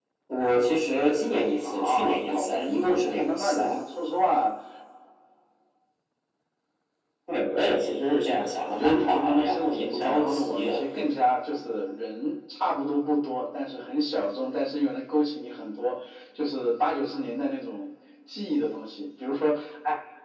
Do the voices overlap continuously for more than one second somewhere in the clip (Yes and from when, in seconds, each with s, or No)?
Yes, from 1.6 s